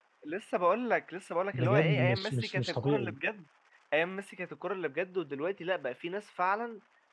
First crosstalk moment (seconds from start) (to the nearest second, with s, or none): 2 s